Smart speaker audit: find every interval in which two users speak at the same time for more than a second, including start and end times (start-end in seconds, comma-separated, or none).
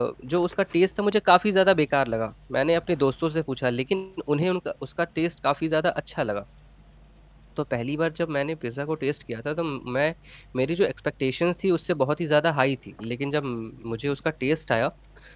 none